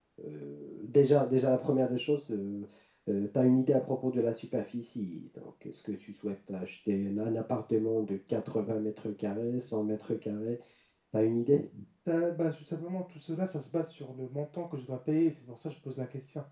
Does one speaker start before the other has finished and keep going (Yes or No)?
No